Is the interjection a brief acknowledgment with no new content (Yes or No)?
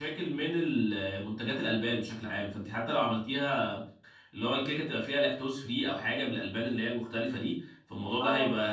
Yes